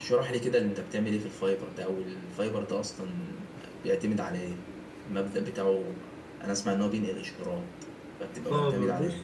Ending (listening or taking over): taking over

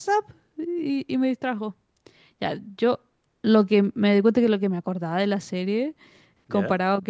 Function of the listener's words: listening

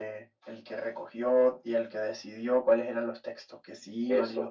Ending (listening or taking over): taking over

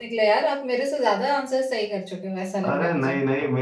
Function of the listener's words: taking over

